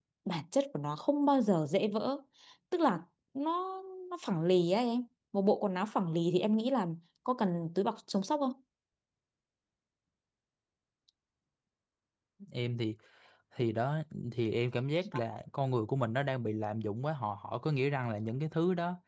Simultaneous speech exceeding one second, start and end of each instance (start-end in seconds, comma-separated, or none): none